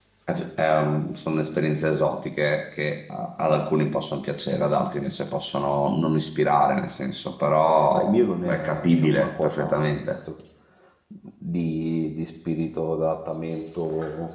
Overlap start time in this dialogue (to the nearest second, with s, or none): 8 s